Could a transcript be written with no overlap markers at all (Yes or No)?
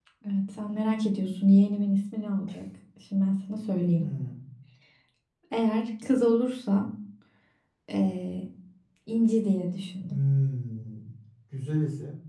Yes